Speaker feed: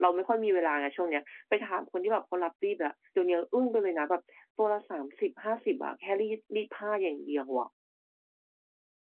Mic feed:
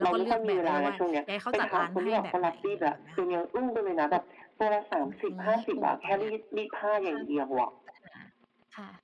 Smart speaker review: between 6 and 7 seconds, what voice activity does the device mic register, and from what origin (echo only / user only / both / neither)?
both